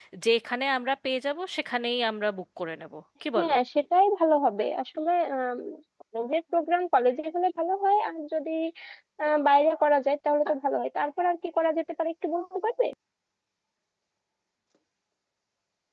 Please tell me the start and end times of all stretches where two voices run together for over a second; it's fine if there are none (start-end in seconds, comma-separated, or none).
none